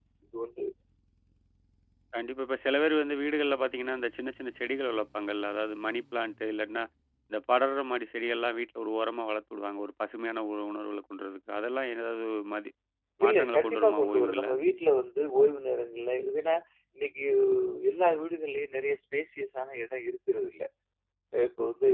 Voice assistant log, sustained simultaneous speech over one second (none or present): present